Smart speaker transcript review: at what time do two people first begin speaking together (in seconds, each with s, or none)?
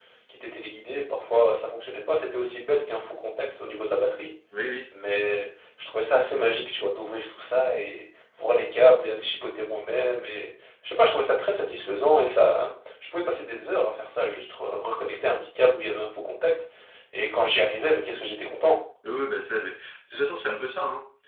none